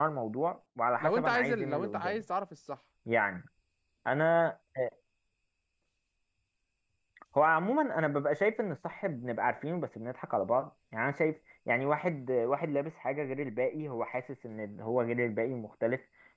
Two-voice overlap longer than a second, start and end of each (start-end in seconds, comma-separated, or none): 1.0-2.2